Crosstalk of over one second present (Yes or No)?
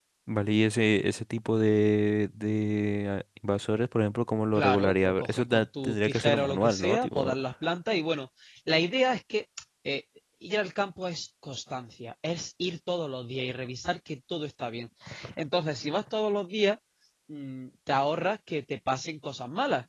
Yes